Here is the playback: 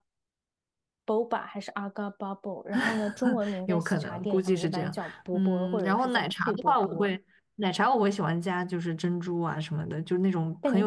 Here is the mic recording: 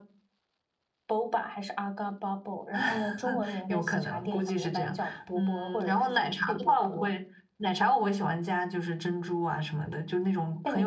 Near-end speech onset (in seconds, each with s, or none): none